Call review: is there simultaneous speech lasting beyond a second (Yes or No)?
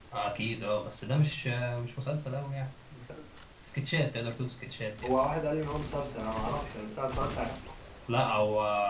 No